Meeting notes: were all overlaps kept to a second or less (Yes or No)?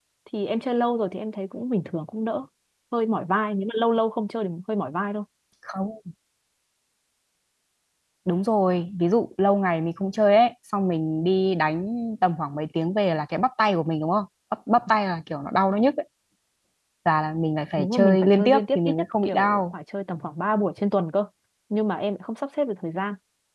No